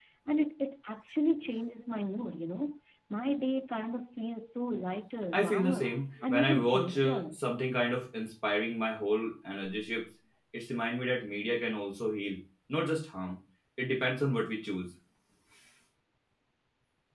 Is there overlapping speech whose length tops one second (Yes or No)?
Yes